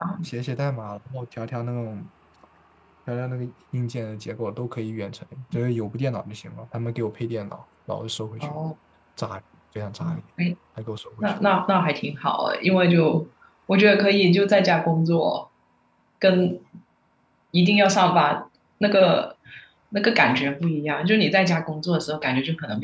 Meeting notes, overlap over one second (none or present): none